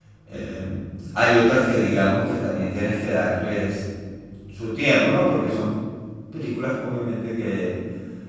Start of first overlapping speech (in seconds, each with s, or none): none